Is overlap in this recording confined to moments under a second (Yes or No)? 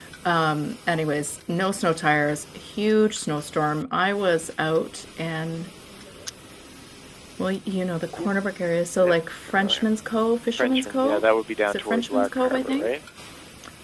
No